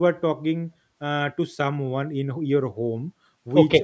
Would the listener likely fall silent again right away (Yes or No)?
Yes